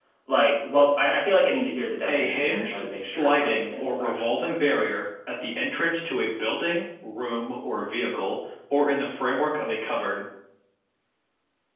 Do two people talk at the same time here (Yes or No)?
Yes